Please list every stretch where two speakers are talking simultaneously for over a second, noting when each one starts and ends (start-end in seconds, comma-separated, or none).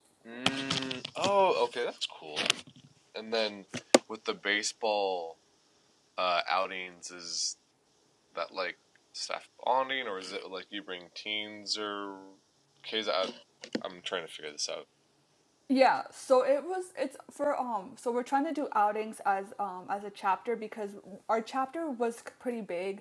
none